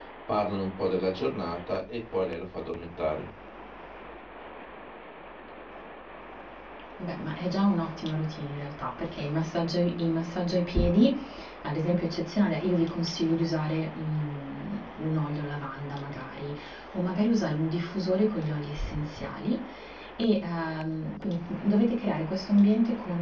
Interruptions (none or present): none